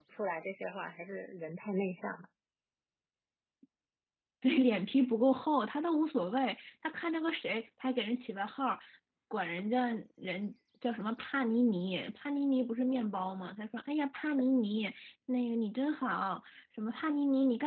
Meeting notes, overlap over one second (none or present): none